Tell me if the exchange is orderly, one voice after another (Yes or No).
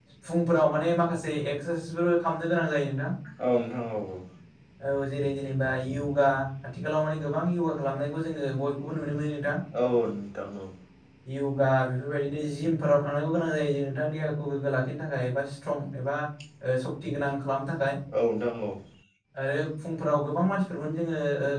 Yes